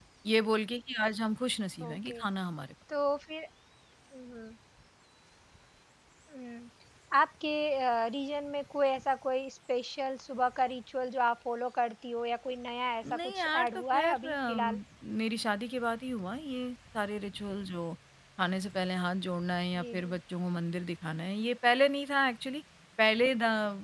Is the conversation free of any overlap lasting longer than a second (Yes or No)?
No